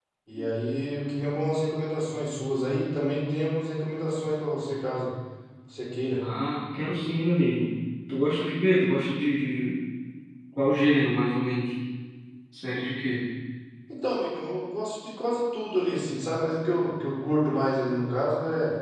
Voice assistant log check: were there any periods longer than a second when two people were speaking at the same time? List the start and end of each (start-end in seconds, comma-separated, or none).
none